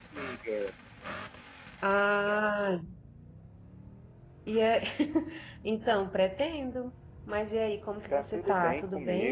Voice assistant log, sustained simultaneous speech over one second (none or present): present